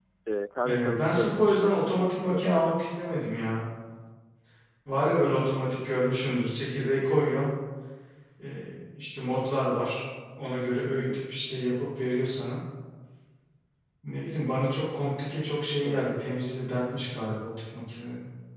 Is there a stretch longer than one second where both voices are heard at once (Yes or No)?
Yes